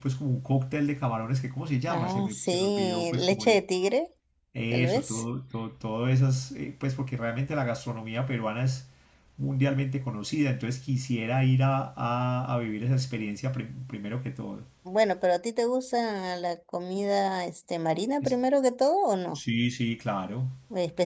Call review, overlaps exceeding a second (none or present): present